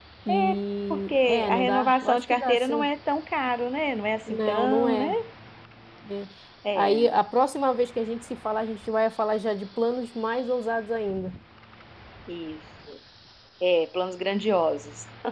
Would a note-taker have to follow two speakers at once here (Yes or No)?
Yes